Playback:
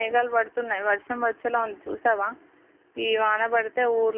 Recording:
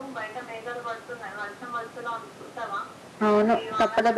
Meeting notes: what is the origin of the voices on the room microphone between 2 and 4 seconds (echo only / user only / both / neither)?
both